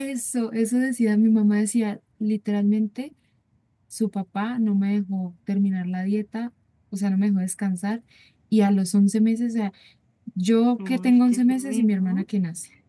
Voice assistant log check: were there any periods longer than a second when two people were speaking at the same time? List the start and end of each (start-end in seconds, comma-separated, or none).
10.9-12.2